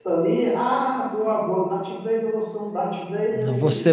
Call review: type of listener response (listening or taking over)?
taking over